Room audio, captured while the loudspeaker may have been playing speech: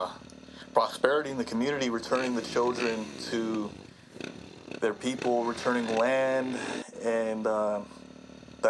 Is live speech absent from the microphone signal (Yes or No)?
No